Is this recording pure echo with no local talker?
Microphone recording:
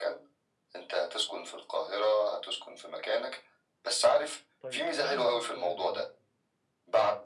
No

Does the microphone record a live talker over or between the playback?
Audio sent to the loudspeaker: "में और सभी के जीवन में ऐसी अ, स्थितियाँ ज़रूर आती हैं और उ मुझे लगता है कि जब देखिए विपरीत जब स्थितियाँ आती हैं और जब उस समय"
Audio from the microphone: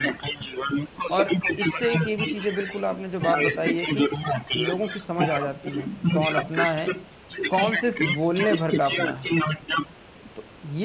Yes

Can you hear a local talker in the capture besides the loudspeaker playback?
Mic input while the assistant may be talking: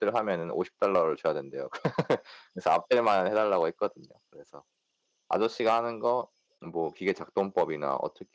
Yes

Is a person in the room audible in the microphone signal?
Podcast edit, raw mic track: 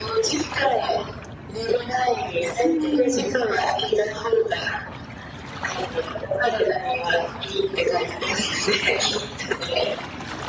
Yes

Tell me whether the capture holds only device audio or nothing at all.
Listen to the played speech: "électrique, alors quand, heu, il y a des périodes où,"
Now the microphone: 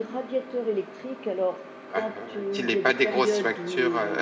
No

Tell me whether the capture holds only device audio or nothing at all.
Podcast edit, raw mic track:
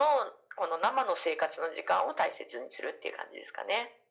Yes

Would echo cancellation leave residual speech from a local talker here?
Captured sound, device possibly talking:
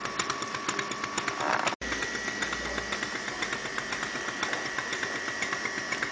No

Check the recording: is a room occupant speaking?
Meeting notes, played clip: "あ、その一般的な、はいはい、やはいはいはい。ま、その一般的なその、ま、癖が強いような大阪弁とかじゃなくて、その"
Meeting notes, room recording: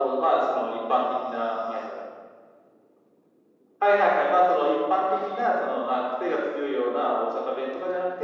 No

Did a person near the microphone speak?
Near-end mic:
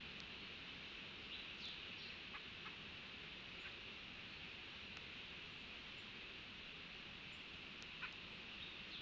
No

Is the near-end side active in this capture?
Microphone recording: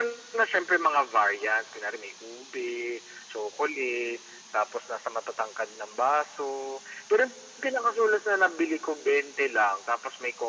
No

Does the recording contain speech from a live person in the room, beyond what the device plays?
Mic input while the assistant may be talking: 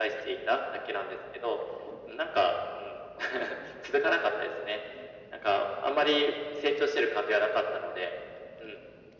No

